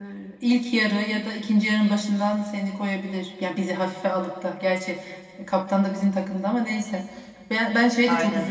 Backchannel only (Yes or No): Yes